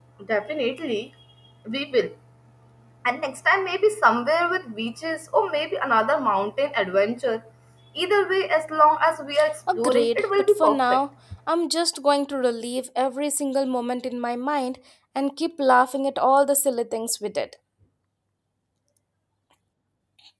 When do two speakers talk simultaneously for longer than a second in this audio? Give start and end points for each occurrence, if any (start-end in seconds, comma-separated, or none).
9.8-11.0